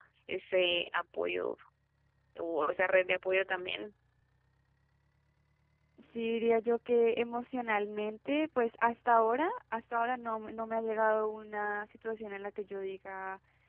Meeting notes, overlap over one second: none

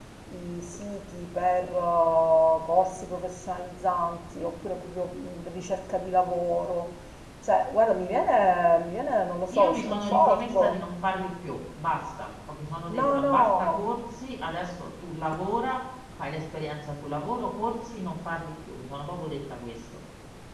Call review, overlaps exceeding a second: present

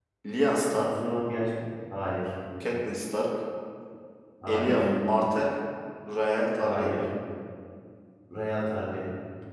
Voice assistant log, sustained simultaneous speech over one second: none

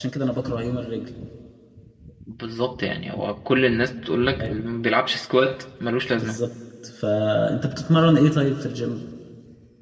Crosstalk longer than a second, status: none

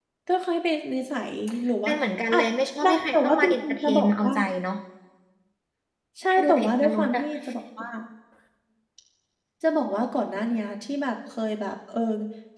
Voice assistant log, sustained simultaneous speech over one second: present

